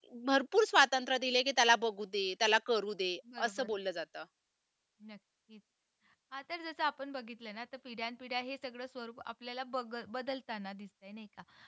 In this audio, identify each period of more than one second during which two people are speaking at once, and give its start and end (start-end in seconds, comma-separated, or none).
none